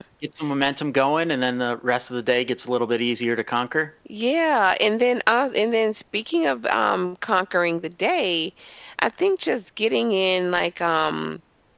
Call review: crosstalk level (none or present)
none